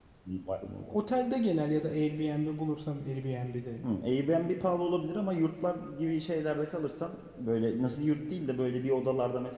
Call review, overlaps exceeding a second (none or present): none